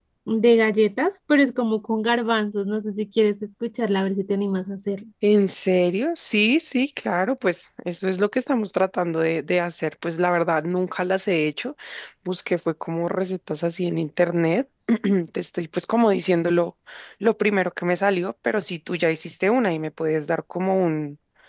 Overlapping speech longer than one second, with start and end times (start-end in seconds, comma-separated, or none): none